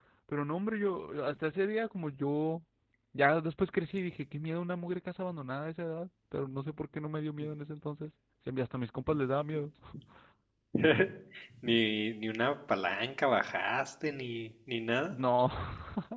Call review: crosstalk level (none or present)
none